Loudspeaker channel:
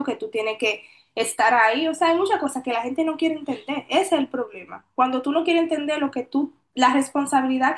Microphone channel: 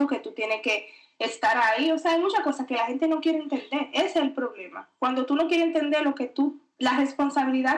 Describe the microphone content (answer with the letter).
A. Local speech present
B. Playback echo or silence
B